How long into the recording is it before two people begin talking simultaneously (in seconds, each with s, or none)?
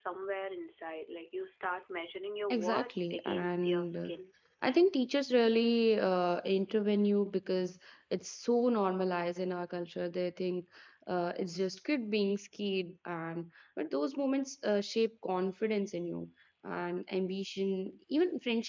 2.5 s